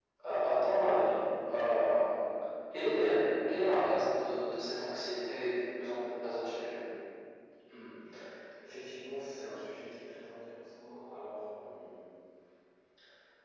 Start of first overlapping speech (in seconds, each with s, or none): none